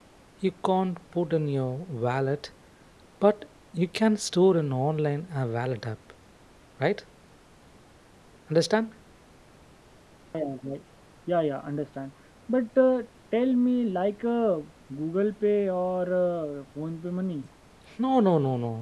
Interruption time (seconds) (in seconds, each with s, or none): none